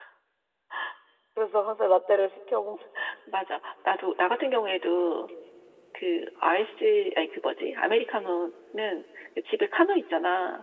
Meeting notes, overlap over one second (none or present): none